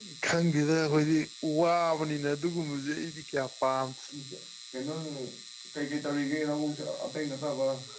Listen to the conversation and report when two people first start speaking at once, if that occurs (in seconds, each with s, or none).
none